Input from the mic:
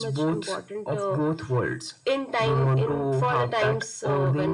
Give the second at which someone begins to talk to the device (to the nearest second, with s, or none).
none